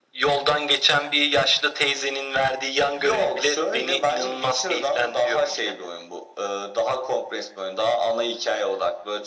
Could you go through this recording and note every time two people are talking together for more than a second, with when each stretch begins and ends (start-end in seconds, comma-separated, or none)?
3.0-5.7